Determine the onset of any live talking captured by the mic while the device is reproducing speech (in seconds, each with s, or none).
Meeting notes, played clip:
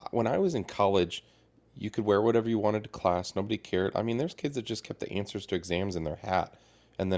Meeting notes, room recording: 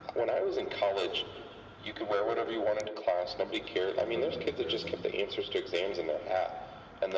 3.9 s